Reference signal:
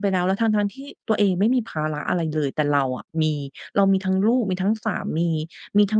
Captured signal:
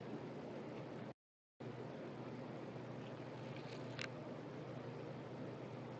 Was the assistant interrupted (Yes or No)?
No